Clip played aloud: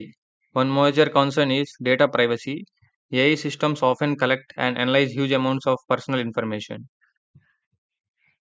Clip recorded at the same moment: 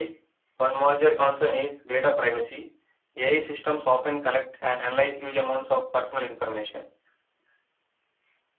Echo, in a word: present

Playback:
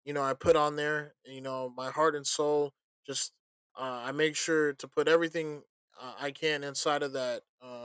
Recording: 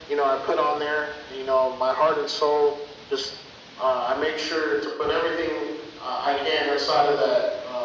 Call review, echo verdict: present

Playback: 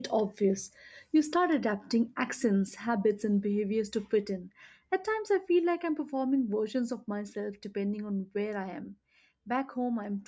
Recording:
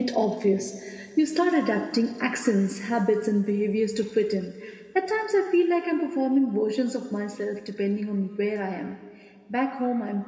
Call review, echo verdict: present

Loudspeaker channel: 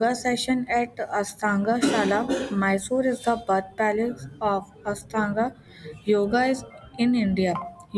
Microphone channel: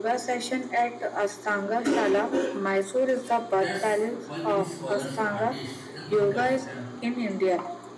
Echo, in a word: present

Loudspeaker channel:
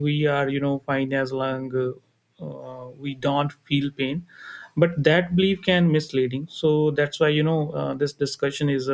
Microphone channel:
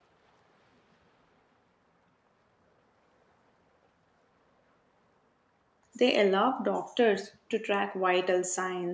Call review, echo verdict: none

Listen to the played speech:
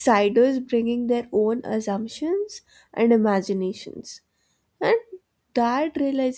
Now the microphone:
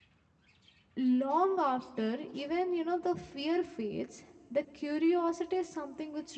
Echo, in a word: none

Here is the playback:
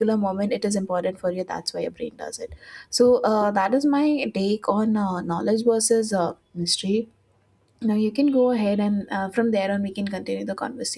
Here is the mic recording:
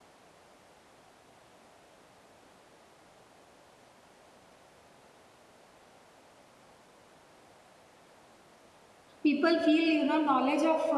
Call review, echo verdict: none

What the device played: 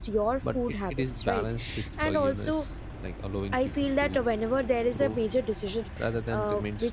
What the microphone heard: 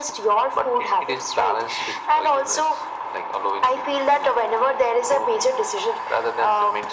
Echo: present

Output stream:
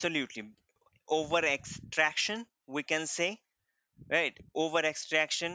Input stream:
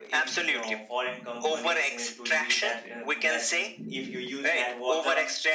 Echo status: present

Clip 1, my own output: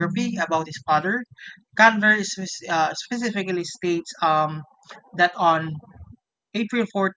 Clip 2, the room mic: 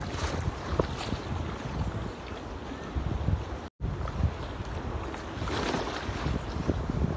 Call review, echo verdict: none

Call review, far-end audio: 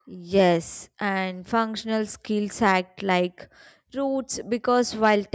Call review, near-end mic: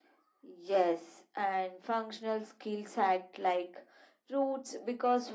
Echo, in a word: present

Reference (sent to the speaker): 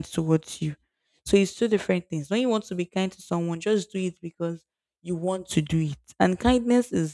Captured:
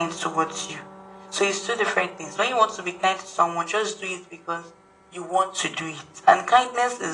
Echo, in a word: present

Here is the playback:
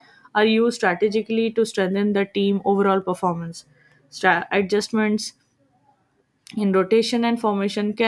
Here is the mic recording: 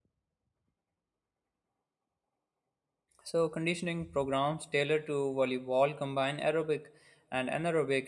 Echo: none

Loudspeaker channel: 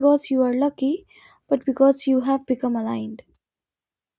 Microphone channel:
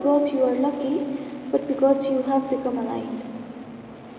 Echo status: present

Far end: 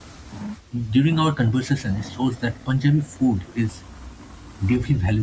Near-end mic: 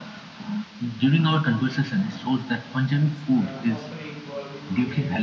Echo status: present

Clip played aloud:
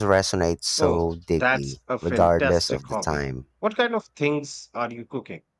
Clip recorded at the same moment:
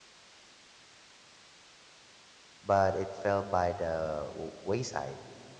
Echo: none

